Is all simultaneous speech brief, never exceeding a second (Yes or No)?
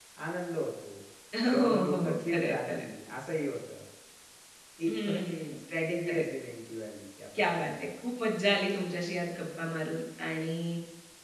No